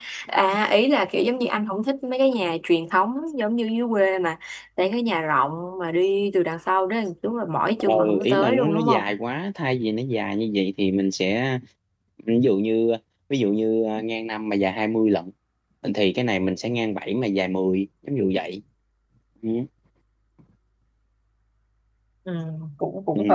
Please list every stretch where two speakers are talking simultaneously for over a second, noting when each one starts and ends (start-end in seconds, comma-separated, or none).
7.8-9.0